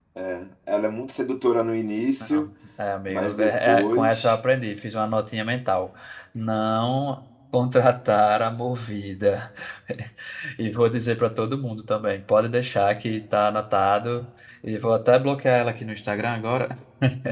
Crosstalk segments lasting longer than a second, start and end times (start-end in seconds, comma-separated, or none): 3.1-4.4